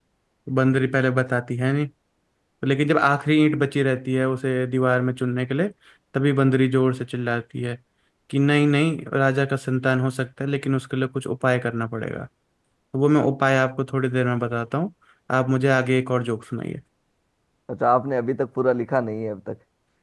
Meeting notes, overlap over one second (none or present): none